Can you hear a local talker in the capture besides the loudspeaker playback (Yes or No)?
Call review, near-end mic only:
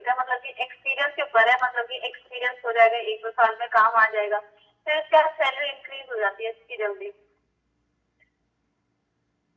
No